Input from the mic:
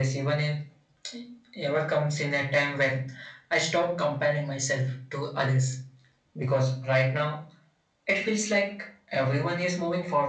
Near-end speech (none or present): none